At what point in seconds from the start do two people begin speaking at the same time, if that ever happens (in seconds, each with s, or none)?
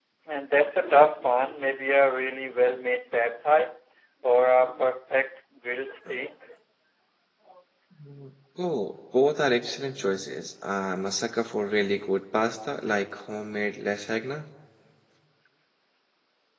none